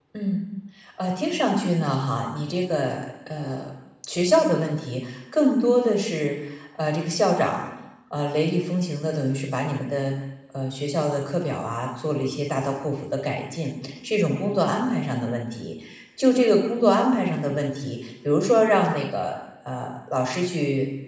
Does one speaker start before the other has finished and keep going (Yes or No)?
No